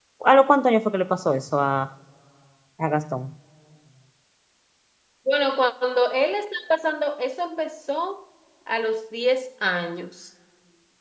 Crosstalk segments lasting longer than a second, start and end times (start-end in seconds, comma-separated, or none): none